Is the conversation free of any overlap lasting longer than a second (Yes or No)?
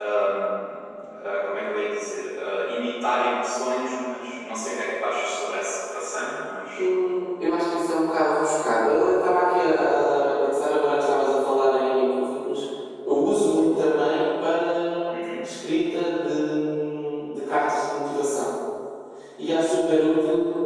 Yes